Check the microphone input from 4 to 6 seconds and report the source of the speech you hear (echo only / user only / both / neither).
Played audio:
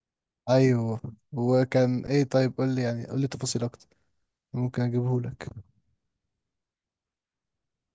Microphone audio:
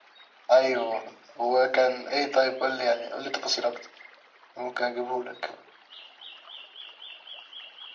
echo only